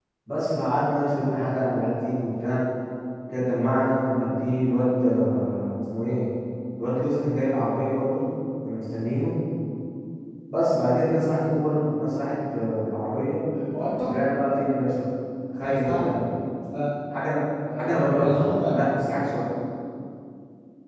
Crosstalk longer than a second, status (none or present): present